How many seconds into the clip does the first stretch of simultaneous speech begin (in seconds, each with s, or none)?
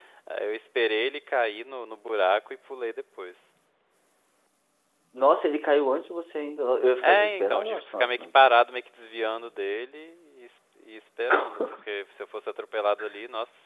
7.0 s